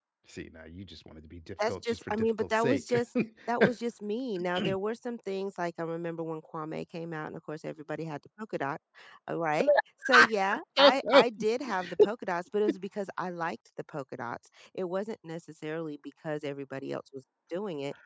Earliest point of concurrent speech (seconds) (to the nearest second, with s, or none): 2 s